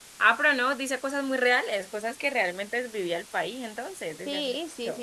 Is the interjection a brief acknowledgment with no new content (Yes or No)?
No